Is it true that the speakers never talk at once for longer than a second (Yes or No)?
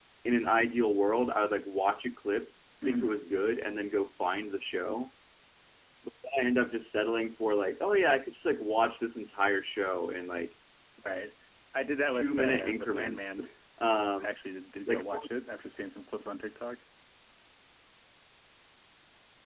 No